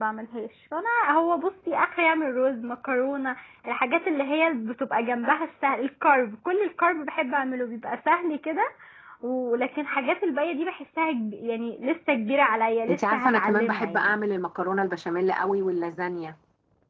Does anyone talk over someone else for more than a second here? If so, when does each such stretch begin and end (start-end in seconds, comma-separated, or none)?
12.9-14.2